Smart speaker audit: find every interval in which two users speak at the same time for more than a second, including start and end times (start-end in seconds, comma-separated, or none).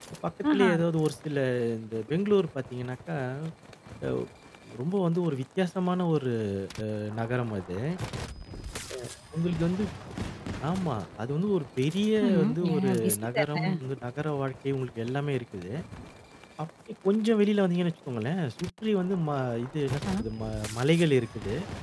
12.3-13.6